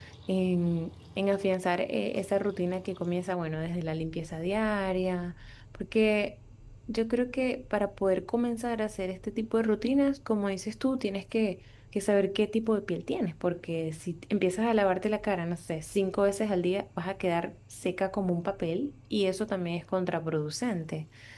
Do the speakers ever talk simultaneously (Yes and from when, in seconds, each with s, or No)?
No